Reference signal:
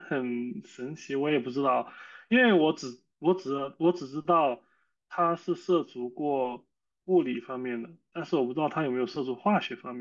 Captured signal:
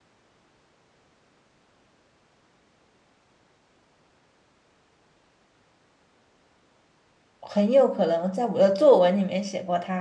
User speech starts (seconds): 7.4 s

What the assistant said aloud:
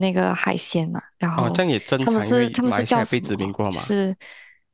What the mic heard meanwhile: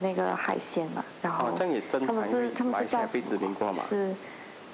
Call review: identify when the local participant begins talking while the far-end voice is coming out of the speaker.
none

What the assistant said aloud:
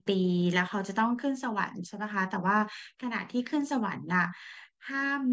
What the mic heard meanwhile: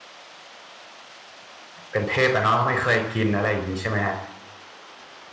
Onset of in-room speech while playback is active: 1.9 s

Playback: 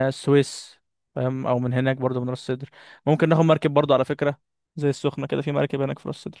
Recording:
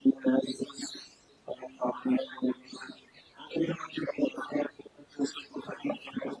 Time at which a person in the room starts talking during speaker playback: none

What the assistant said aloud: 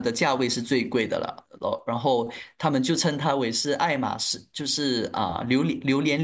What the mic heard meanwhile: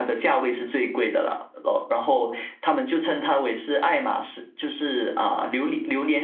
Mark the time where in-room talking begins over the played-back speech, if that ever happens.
none

